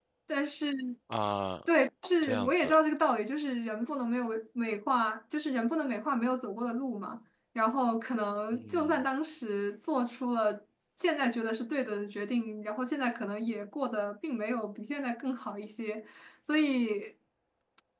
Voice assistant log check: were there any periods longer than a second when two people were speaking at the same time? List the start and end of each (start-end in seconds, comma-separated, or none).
none